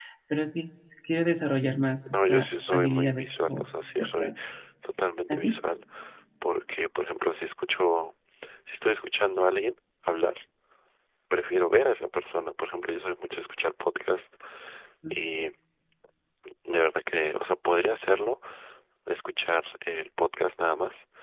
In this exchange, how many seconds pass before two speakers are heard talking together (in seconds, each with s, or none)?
2.1 s